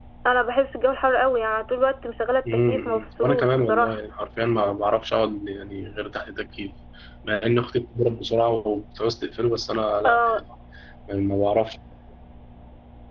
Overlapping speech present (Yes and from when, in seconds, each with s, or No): Yes, from 2.7 s